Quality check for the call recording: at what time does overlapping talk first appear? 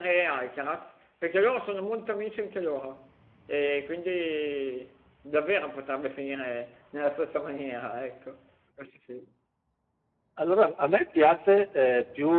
none

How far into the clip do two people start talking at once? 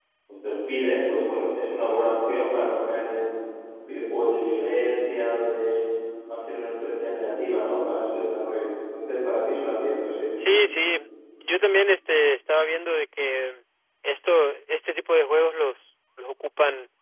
none

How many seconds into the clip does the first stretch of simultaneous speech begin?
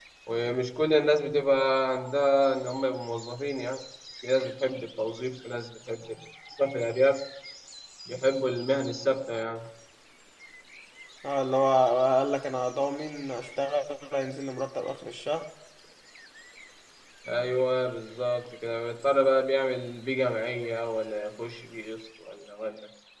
none

